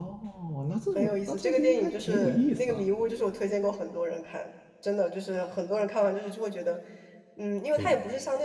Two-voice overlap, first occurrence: 0.9 s

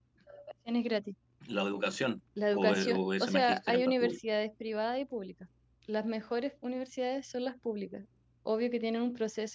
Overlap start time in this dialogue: 2.4 s

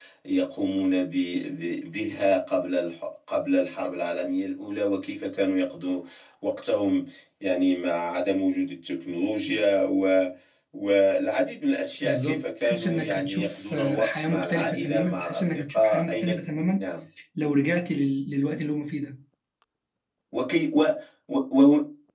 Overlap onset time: 12.0 s

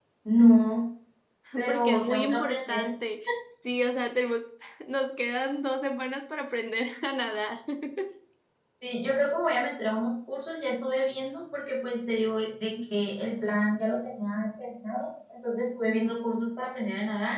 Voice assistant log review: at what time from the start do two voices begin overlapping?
1.6 s

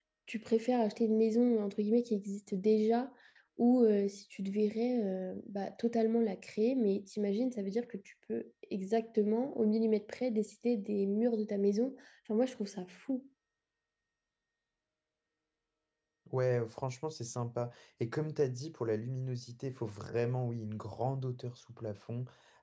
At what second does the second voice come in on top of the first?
none

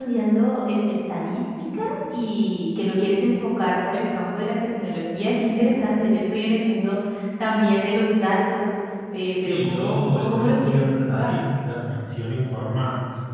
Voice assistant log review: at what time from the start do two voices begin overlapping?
9.3 s

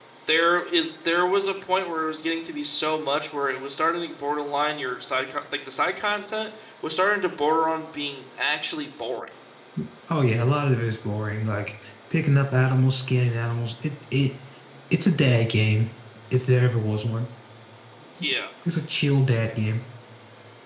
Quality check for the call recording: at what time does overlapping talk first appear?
none

